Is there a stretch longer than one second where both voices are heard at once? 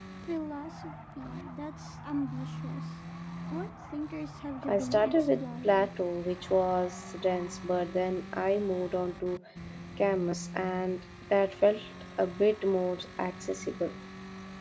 Yes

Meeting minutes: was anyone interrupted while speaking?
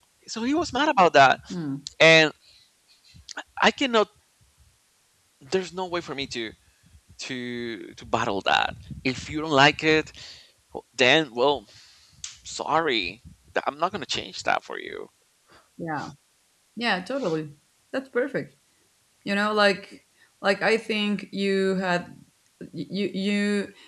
No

